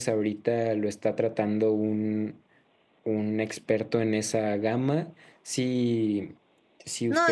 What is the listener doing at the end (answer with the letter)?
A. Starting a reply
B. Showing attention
A